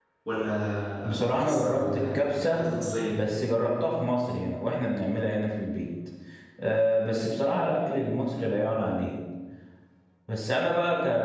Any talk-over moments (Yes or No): Yes